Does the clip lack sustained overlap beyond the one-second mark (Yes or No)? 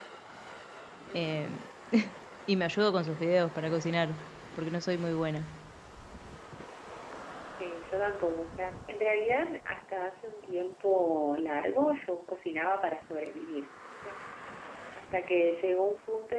Yes